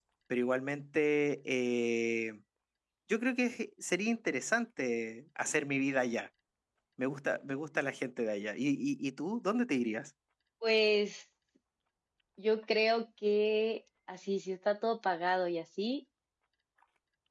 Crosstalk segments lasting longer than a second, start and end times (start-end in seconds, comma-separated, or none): none